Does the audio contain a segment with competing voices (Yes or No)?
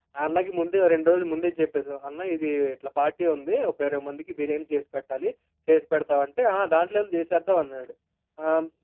No